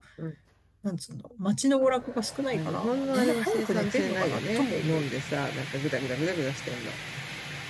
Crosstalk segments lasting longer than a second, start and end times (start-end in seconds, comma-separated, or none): 2.5-5.0